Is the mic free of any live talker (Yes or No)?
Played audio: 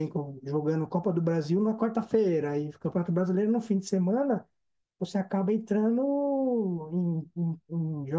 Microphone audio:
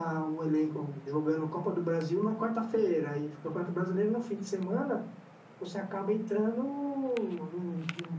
Yes